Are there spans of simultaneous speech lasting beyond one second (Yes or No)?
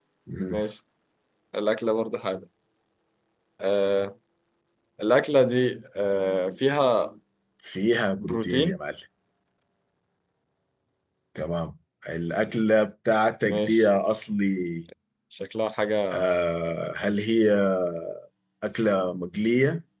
No